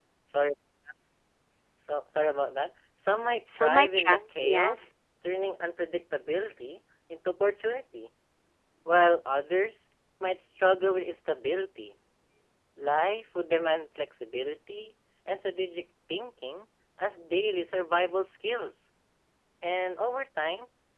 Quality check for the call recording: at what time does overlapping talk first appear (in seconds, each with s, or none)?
3.5 s